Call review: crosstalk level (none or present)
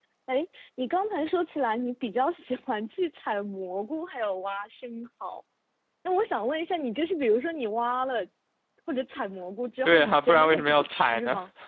present